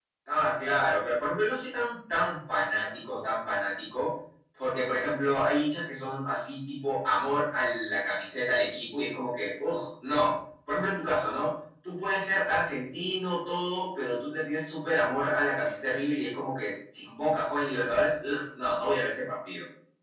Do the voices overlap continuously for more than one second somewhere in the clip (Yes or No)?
No